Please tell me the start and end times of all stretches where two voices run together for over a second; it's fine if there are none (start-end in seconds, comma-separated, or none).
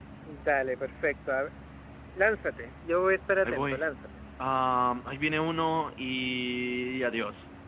none